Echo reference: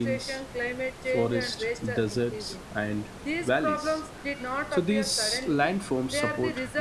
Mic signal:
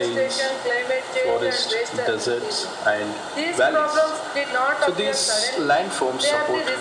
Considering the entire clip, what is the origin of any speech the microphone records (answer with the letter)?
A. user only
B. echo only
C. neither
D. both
B